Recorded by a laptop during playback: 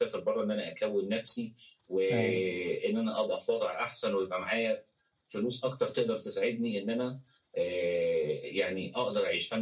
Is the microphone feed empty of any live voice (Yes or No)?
No